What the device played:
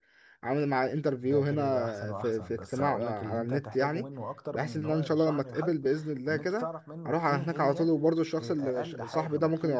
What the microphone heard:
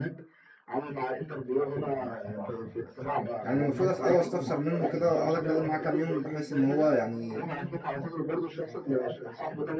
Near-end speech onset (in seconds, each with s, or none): 3.4 s